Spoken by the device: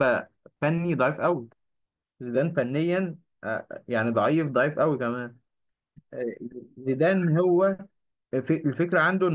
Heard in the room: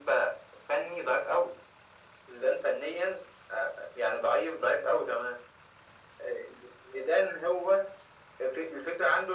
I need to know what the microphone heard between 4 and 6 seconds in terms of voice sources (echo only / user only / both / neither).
echo only